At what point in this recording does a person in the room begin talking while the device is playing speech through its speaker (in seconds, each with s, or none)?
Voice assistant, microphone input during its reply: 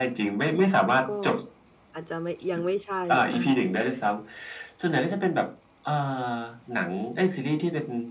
1.1 s